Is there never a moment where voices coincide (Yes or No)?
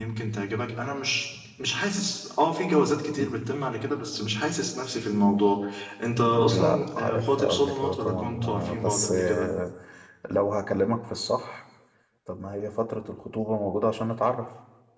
No